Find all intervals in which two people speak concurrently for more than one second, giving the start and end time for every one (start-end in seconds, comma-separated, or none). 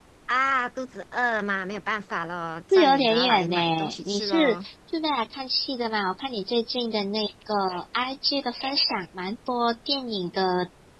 2.7-4.6